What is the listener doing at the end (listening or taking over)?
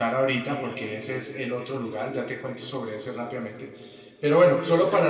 listening